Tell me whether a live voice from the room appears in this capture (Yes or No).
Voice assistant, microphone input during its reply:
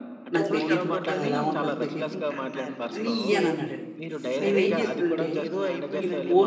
Yes